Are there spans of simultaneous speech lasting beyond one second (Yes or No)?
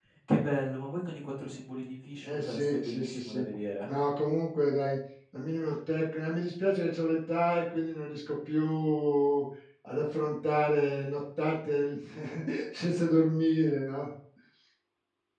Yes